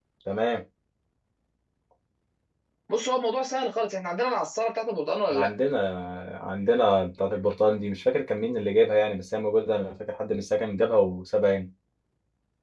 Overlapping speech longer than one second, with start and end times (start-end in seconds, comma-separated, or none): none